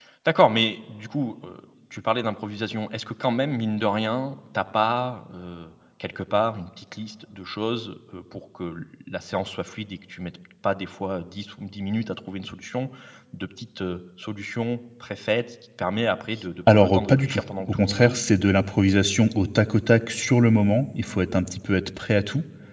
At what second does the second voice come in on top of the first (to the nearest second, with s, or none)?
17 s